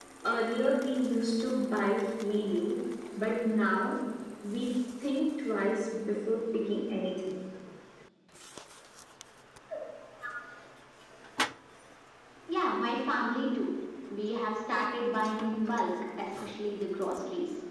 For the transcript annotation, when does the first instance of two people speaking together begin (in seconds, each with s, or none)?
none